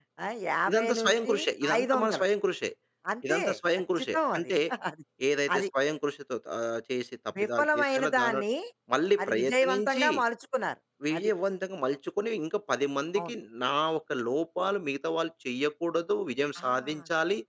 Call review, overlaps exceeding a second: present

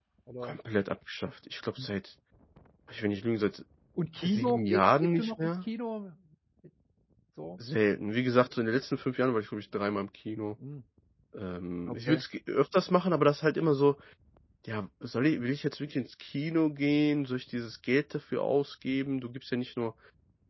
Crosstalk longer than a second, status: present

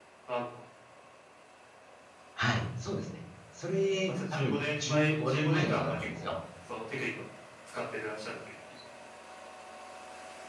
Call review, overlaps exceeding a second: present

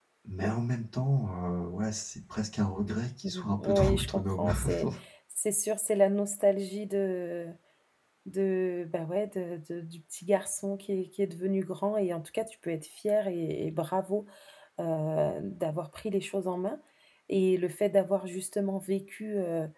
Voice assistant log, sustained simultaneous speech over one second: present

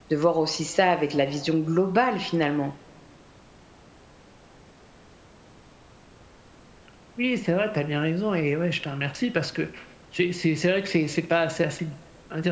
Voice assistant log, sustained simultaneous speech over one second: none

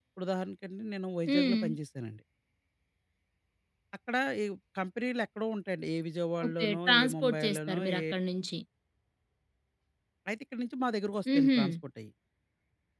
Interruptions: present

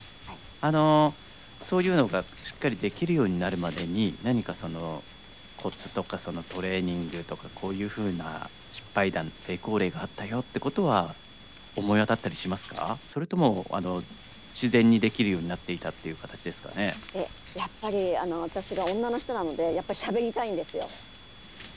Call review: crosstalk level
none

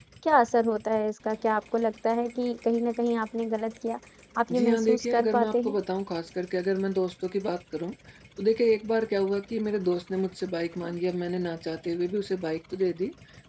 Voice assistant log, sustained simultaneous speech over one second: present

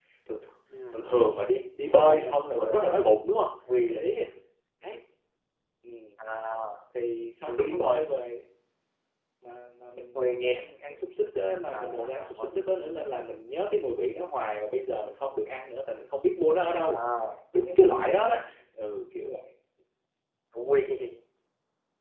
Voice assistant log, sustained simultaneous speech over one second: present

